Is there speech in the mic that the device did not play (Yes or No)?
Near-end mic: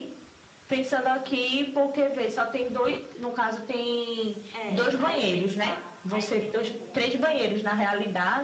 Yes